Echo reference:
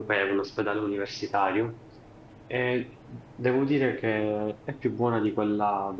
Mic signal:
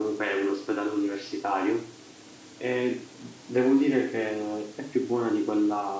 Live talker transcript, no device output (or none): none